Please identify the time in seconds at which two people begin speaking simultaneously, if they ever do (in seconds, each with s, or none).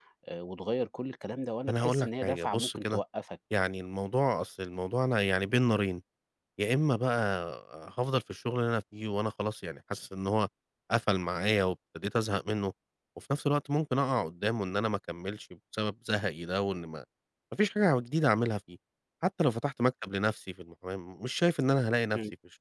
1.7 s